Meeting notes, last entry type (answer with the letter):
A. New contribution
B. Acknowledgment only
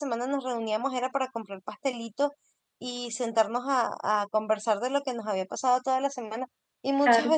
B